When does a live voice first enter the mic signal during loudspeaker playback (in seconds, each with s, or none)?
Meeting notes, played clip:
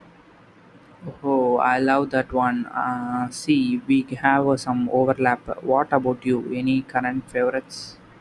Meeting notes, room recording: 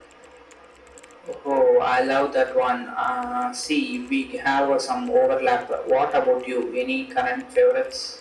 none